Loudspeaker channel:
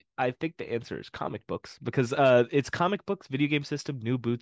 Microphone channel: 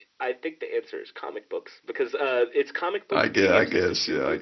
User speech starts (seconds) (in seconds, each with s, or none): 3.1 s